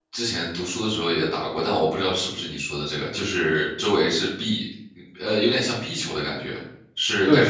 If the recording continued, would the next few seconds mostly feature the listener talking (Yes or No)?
No